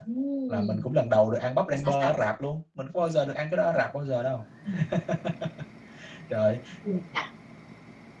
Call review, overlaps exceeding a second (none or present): none